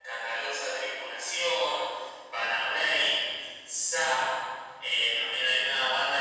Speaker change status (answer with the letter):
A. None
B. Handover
A